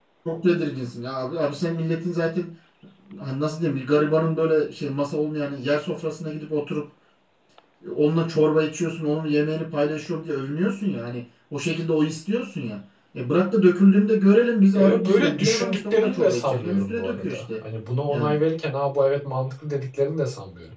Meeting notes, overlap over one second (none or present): present